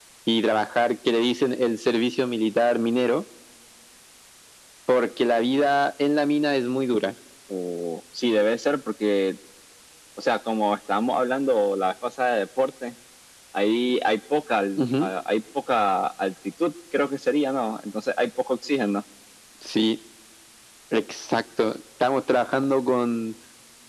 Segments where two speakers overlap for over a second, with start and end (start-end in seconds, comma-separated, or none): none